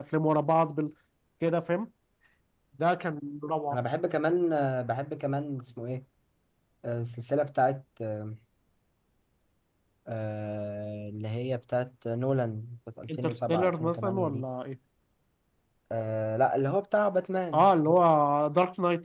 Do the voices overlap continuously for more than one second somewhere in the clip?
Yes, from 13.1 s

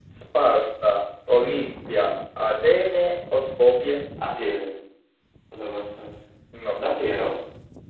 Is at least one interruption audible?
No

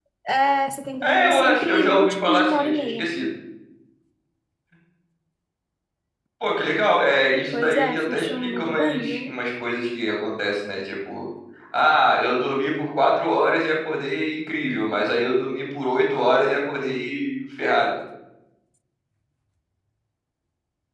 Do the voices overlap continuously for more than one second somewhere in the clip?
Yes, from 1.0 s

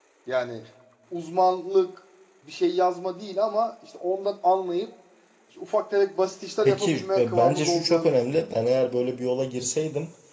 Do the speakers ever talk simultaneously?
Yes, from 6.7 s

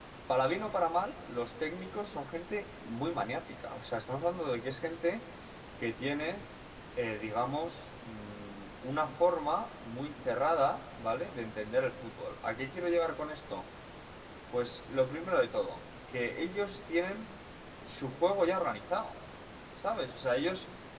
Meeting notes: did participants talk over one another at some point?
No

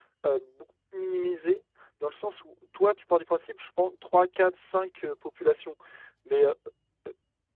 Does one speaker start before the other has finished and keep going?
No

